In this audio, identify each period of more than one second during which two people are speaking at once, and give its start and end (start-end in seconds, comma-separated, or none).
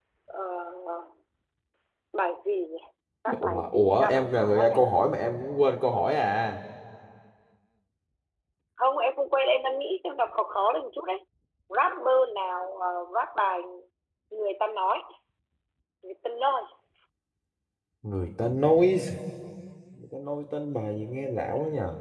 3.4-4.8